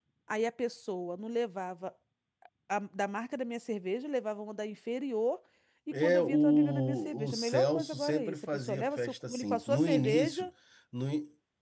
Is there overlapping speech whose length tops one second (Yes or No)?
Yes